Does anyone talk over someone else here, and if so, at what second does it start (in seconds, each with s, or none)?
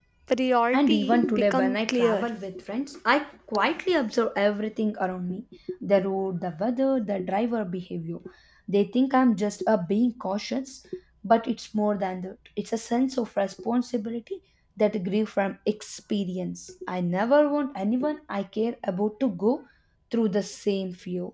0.7 s